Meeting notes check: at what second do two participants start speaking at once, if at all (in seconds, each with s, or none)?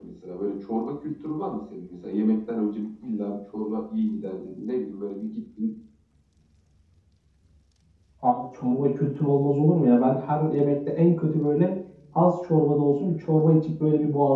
none